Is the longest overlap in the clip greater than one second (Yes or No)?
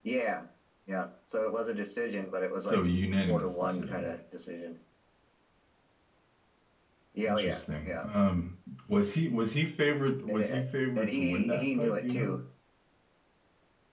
Yes